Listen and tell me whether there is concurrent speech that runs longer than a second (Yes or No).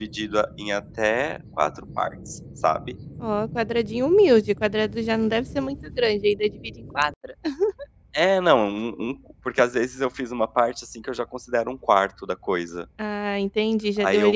No